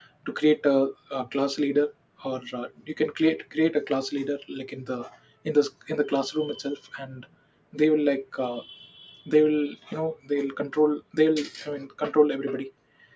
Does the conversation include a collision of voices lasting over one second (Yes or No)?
No